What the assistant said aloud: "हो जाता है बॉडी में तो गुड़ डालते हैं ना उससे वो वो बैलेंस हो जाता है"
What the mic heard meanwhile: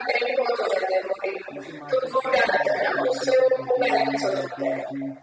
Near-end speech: present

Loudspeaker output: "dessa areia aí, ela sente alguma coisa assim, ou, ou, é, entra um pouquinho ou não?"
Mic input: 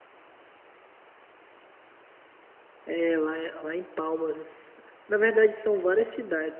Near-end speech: present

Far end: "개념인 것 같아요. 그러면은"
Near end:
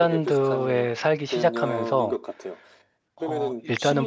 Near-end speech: present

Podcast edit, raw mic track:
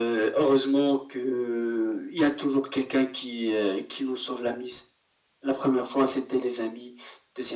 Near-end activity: none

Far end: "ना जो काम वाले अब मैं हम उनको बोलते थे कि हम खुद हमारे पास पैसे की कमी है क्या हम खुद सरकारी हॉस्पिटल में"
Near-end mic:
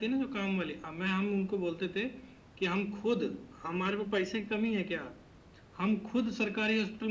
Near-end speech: none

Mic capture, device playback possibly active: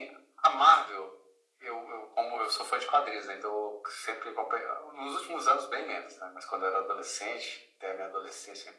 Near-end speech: none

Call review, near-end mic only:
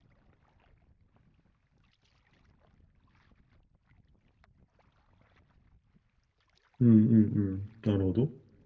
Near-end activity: present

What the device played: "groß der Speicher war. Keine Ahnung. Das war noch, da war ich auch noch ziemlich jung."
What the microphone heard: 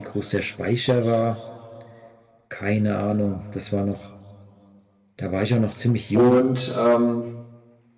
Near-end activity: present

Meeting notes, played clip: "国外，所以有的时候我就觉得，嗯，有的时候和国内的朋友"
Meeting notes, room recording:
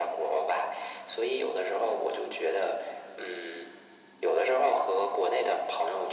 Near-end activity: none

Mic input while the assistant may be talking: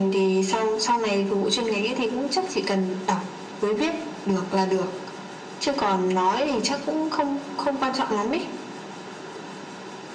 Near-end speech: none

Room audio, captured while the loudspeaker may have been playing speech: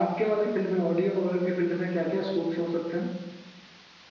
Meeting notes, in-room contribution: none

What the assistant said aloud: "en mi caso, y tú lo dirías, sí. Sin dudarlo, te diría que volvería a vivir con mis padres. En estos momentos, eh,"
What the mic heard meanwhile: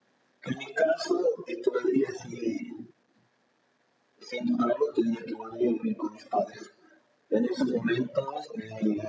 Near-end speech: none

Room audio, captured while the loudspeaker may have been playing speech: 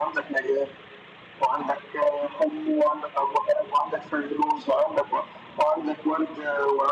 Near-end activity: none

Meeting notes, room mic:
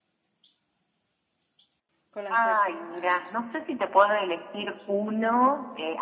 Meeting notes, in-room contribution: present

